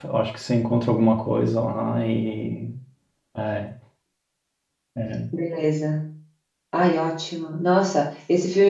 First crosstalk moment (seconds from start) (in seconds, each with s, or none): none